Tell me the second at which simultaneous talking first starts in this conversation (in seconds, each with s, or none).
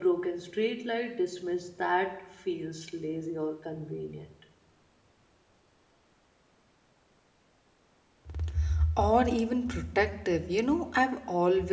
none